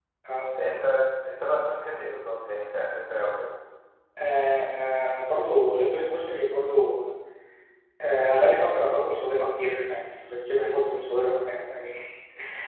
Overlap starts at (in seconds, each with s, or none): none